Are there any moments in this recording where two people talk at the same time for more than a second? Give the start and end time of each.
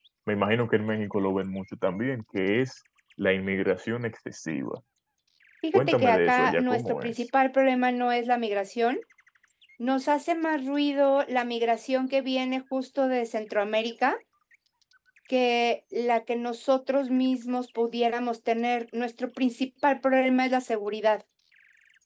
5.7-7.2

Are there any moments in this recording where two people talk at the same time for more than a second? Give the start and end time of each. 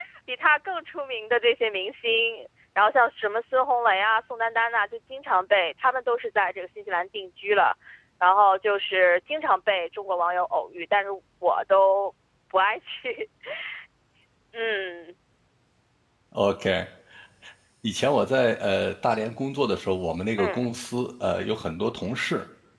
none

